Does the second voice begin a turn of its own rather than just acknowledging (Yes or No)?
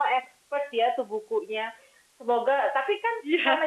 No